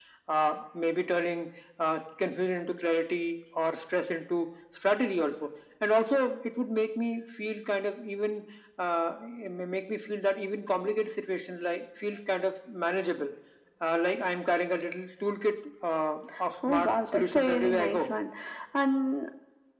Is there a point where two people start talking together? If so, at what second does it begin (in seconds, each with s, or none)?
16.6 s